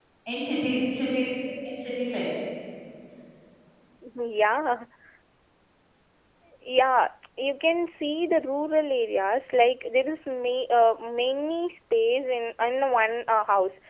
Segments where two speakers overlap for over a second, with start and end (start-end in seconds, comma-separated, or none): none